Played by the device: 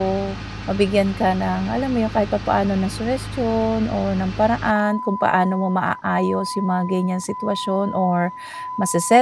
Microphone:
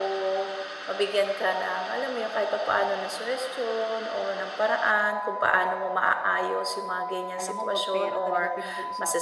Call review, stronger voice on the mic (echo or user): echo